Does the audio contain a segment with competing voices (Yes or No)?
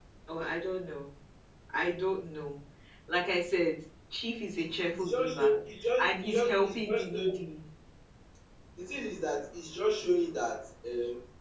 Yes